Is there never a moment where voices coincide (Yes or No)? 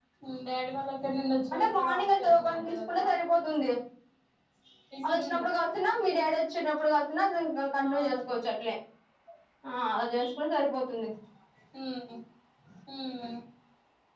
No